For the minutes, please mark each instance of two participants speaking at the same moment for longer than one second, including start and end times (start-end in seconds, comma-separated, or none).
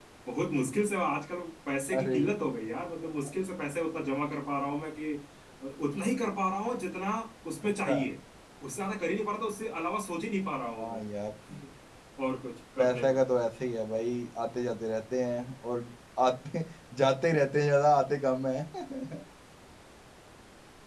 none